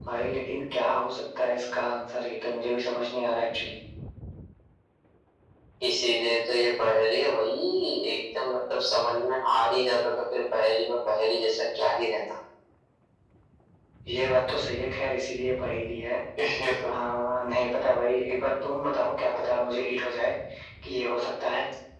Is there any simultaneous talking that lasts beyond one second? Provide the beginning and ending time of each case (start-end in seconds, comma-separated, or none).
none